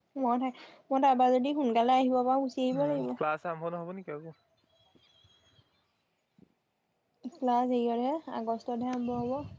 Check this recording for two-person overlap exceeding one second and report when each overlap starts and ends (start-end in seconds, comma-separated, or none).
none